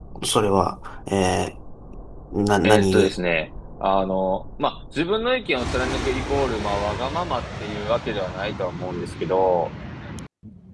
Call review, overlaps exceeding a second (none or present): none